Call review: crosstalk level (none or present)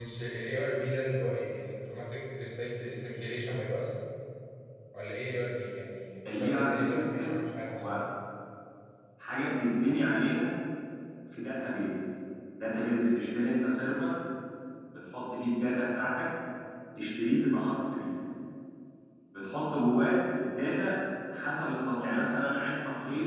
present